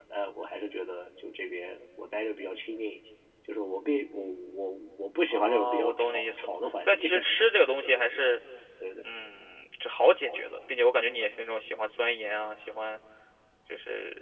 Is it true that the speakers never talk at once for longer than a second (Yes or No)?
No